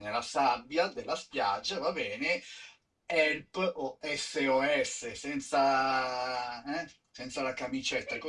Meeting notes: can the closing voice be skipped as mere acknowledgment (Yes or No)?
No